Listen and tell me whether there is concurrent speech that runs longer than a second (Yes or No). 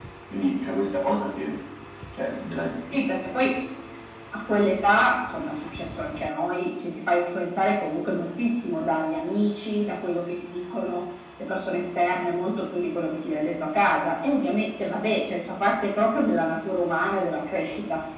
No